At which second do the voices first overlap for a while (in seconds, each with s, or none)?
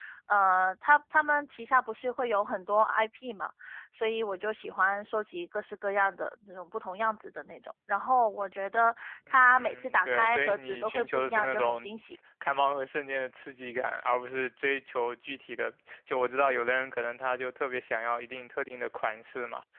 9.3 s